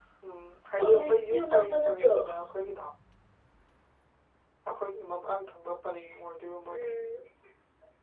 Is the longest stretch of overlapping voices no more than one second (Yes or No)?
No